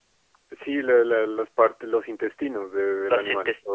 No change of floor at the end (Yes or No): No